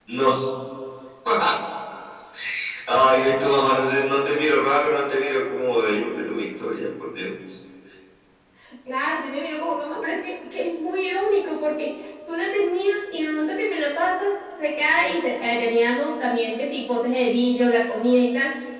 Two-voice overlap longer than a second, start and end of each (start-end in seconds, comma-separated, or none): none